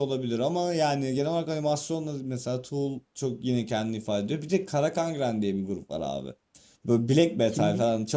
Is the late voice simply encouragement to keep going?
Yes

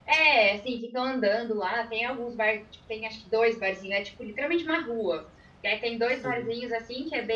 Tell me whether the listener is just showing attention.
Yes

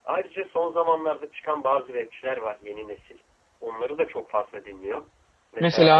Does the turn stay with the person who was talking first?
Yes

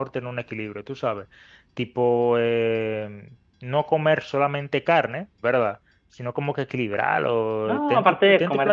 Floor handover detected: Yes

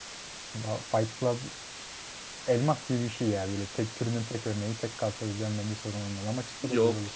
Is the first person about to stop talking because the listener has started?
Yes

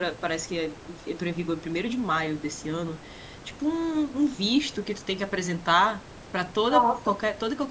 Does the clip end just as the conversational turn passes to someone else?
No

